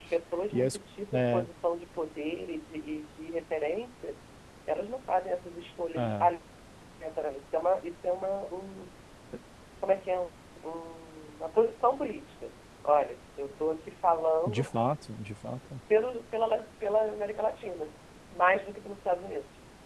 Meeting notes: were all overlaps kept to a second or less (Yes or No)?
Yes